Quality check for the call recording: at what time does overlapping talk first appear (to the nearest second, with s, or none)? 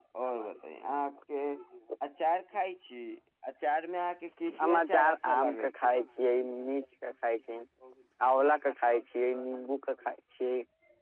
5 s